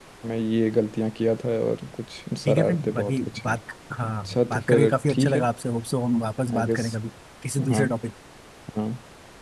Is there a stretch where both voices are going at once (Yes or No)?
Yes